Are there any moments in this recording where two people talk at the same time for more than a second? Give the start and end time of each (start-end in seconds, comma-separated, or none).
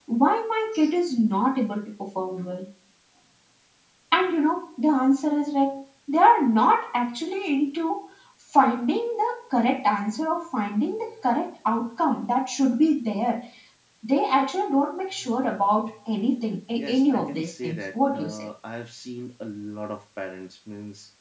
16.7-18.5